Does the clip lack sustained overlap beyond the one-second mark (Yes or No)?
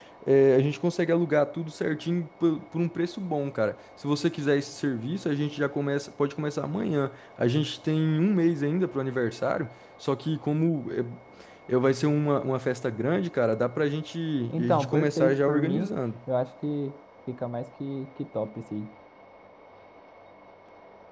No